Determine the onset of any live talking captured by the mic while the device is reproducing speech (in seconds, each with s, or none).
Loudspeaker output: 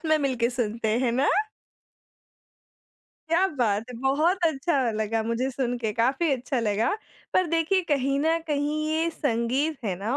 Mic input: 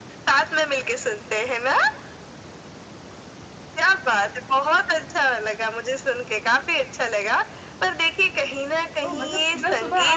9.0 s